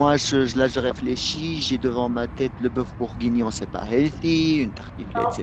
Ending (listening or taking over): listening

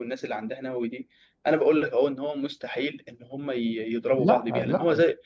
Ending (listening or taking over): listening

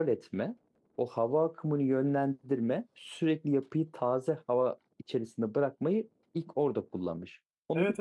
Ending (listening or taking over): taking over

